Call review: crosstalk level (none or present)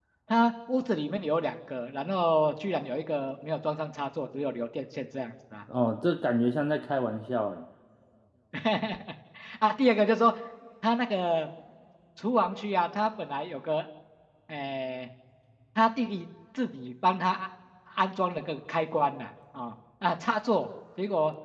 none